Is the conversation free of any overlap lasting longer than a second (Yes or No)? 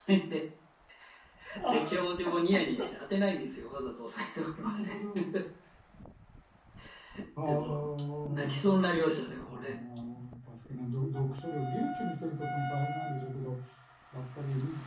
Yes